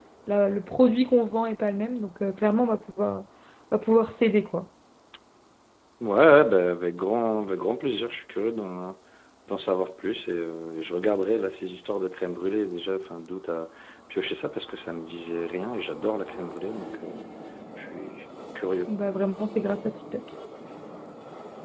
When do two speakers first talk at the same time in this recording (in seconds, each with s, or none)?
none